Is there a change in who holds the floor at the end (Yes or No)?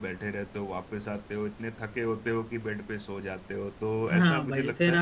Yes